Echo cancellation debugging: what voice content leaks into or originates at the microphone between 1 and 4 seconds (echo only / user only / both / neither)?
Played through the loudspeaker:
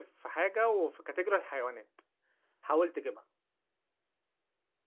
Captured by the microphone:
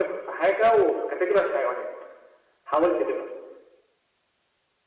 echo only